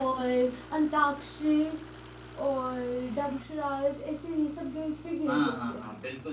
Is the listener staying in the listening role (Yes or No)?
No